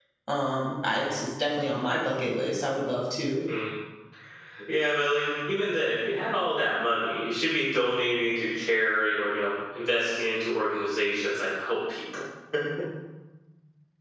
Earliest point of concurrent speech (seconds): none

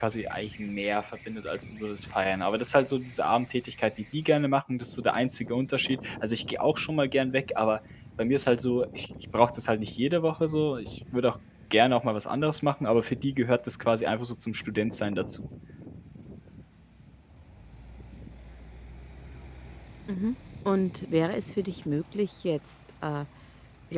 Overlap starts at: none

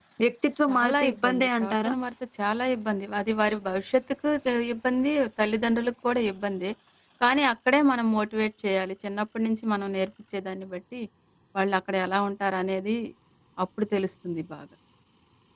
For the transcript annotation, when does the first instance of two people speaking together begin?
0.7 s

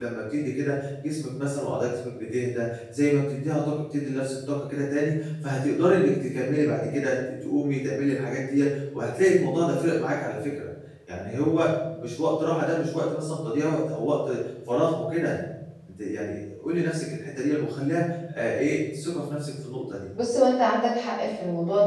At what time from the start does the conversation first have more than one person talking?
none

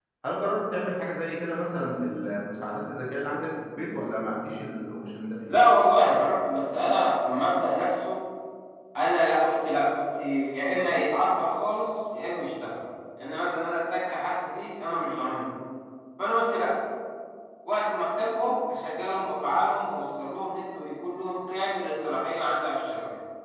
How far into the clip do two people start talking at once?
none

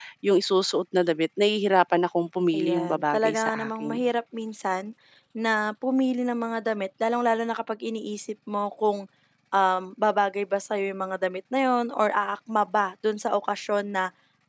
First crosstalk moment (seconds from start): 2.5 s

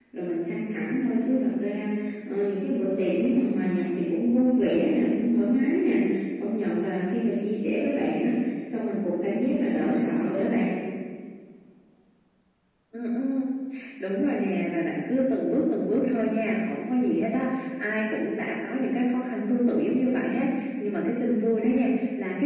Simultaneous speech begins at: none

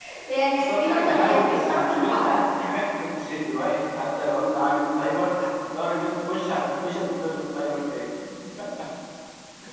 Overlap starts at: 0.5 s

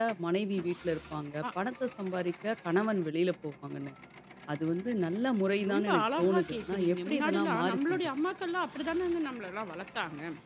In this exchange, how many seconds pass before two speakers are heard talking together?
5.5 s

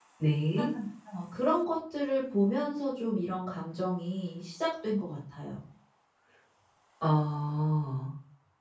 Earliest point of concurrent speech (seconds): none

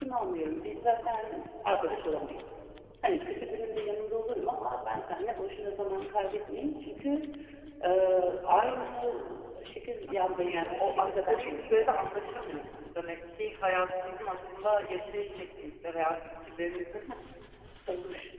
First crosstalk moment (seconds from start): 10.3 s

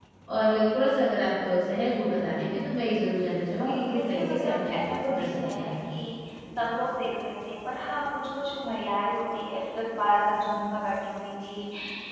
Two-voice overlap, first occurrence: 3.6 s

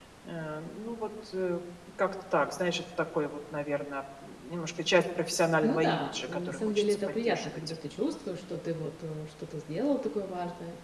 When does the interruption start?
5.6 s

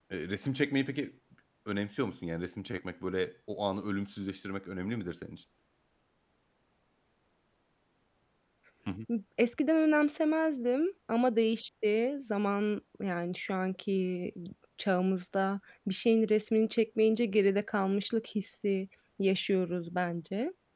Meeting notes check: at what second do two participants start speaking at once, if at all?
none

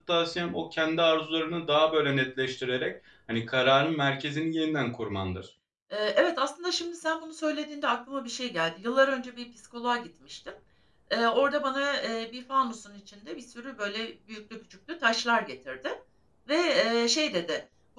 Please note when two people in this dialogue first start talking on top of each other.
none

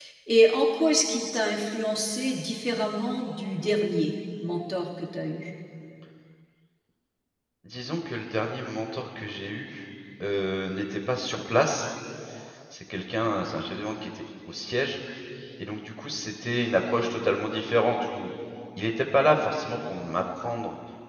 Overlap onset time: none

